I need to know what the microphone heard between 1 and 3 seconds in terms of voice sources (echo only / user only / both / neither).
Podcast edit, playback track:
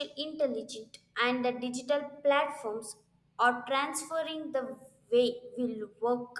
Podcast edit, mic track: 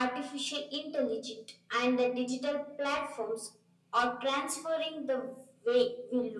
echo only